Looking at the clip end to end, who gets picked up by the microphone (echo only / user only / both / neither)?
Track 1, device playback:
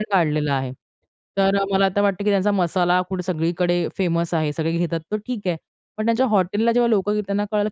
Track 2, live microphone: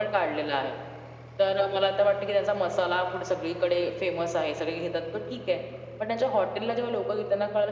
echo only